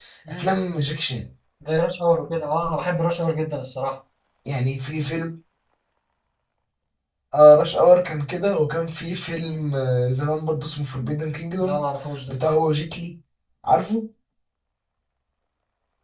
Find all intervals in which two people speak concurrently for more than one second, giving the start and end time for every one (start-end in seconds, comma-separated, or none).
none